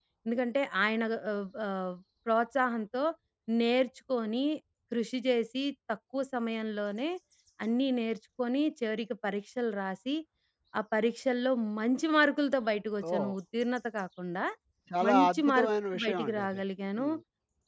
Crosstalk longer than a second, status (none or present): present